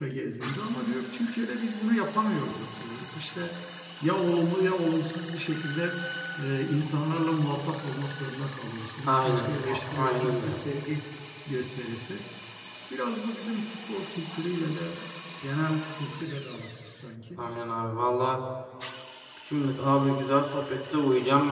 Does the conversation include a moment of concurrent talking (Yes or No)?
Yes